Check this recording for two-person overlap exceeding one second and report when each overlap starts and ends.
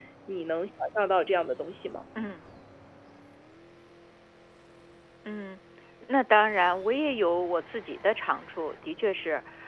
none

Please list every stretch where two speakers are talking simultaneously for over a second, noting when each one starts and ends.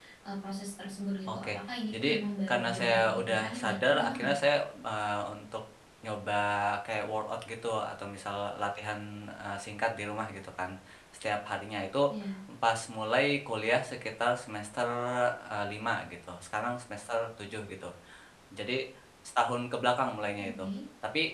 2.5-4.3

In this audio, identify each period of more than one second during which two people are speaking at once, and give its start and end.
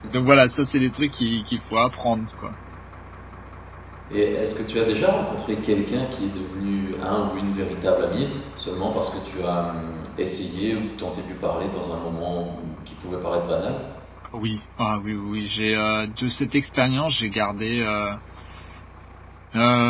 none

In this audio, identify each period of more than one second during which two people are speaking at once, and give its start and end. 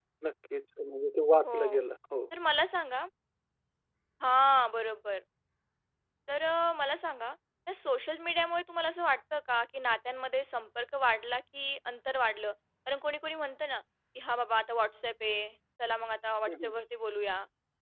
none

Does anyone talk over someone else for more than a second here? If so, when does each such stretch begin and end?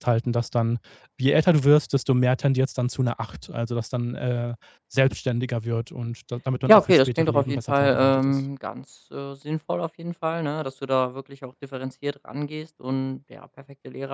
6.7-8.3

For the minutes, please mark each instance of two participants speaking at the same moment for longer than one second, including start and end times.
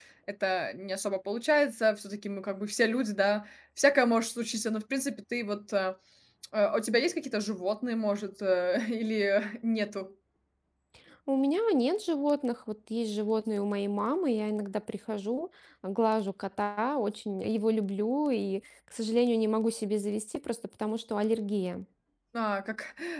none

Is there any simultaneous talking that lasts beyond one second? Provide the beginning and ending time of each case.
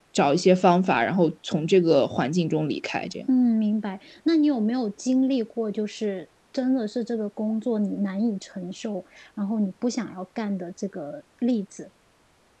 none

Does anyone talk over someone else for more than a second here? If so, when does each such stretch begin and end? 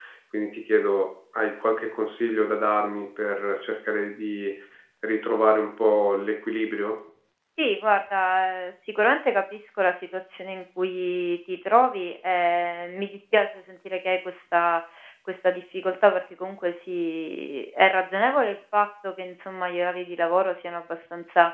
none

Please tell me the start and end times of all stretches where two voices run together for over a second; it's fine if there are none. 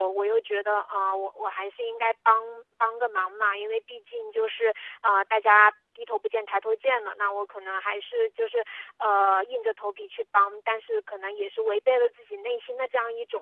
none

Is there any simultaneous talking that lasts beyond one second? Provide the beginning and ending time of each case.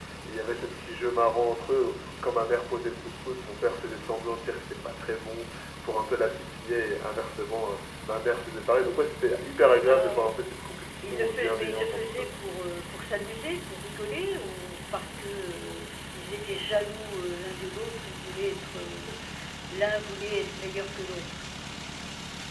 11.0-12.4

